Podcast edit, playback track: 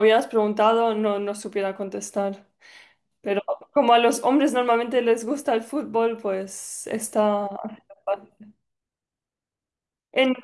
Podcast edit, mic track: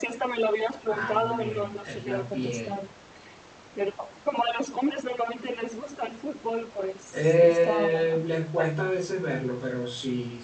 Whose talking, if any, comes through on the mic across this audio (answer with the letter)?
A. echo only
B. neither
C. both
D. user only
C